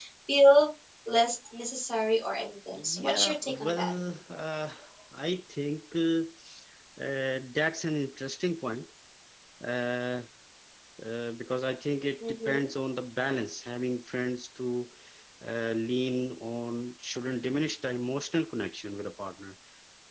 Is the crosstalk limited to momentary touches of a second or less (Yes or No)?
No